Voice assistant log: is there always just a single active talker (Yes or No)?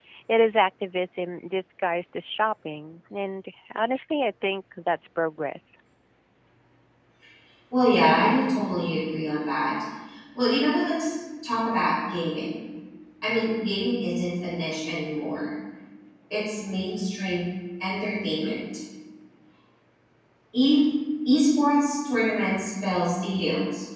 Yes